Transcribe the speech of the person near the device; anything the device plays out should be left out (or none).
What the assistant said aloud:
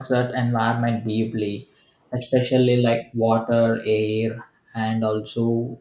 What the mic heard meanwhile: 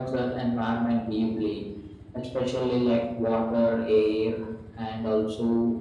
none